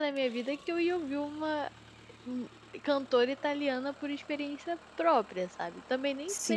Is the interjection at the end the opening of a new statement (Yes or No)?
Yes